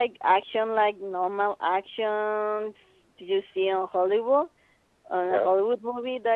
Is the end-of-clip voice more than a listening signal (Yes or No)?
No